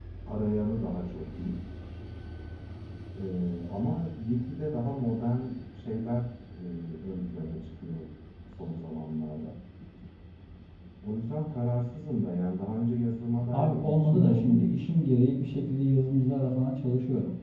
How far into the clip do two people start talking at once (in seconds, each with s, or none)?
13.5 s